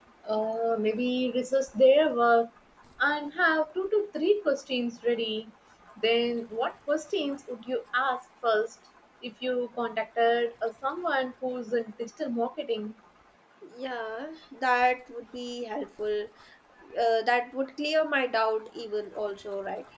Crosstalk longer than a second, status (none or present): none